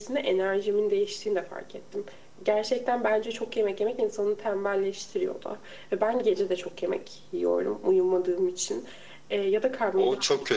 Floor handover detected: Yes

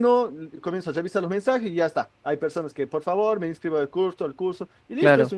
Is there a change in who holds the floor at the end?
No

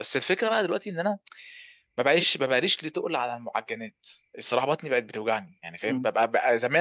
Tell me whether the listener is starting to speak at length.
No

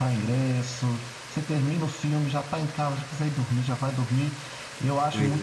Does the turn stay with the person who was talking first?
Yes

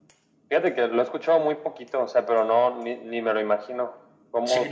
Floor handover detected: Yes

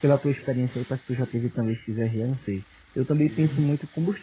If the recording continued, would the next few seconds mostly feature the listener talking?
No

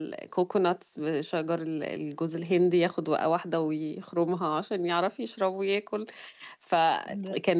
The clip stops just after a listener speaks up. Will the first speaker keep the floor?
Yes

